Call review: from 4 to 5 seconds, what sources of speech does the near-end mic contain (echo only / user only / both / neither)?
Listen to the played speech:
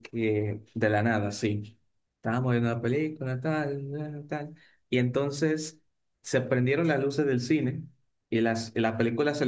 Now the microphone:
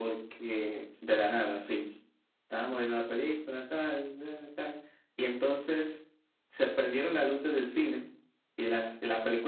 echo only